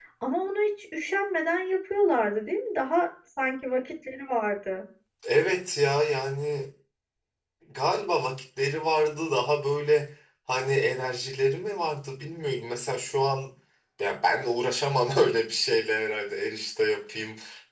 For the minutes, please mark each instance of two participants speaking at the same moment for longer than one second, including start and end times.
none

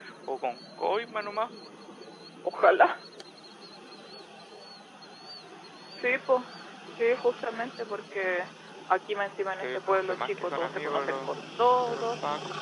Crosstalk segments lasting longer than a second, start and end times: 9.5-11.3

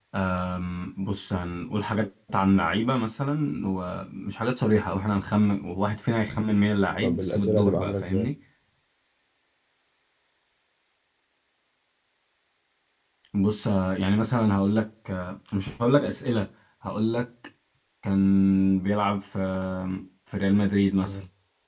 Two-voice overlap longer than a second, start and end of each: 7.0-8.3

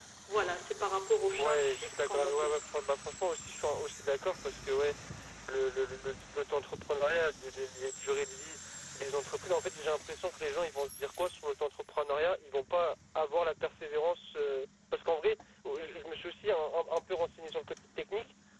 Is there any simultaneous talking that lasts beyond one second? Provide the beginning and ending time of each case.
1.4-2.6

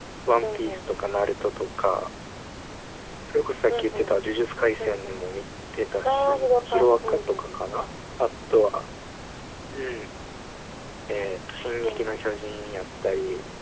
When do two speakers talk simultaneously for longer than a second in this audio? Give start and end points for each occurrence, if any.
6.0-7.5

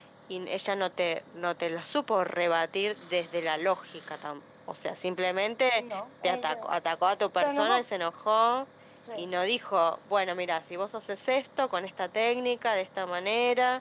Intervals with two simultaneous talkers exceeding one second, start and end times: none

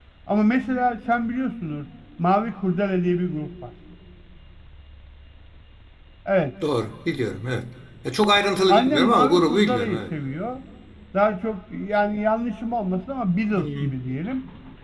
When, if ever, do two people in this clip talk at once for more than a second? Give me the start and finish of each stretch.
8.7-10.0

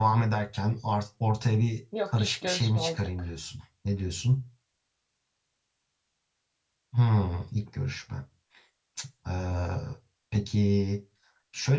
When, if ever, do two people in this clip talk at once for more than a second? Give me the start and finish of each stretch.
2.1-3.3

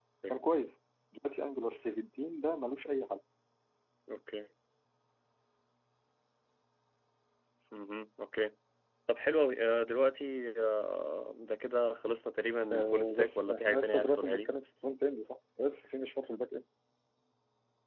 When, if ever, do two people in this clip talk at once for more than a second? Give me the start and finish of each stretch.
12.7-14.5

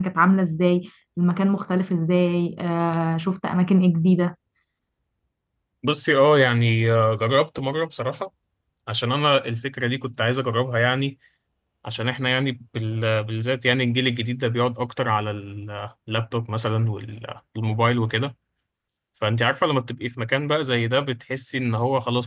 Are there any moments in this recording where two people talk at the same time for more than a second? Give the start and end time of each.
none

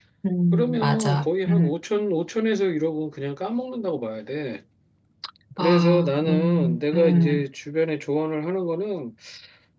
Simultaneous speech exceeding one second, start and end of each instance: 0.5-1.7, 5.6-7.4

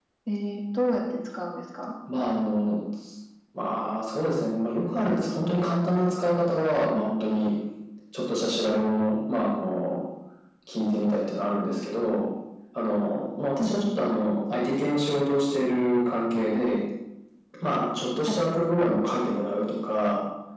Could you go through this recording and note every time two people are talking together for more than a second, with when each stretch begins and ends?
none

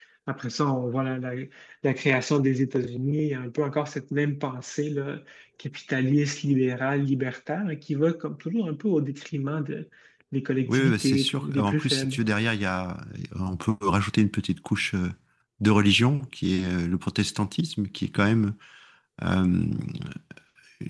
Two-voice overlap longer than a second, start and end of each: 10.7-12.2

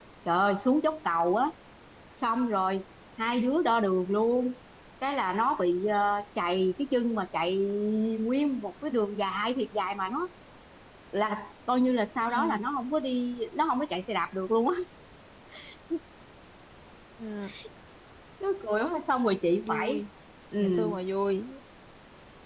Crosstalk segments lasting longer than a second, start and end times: none

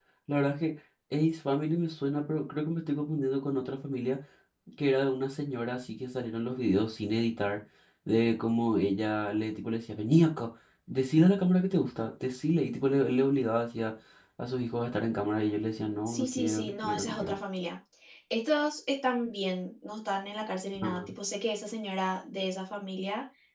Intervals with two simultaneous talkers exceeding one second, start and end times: 16.1-17.3

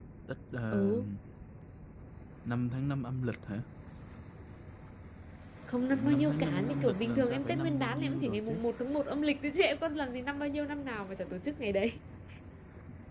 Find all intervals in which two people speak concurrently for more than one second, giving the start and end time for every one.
5.9-8.6

